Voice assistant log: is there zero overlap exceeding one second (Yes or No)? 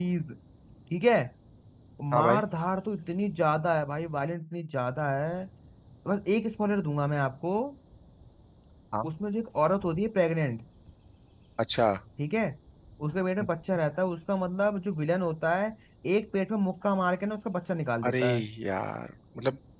Yes